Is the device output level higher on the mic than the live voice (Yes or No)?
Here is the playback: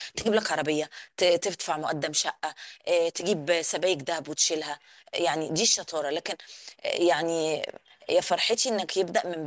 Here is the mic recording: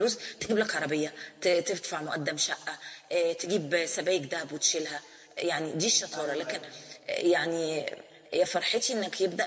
Yes